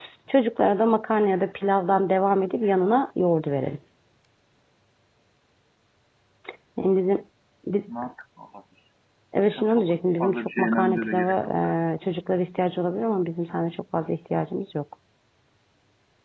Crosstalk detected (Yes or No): Yes